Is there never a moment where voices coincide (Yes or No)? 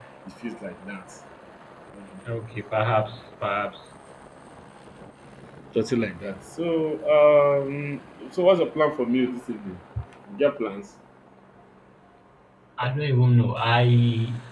Yes